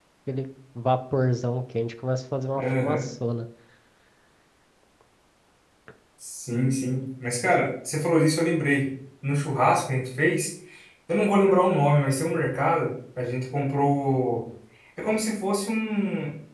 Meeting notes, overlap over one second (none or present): none